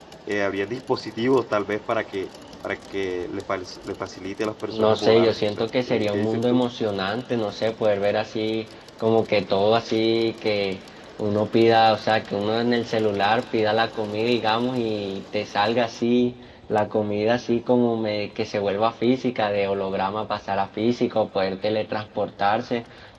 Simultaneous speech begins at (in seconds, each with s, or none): 4.7 s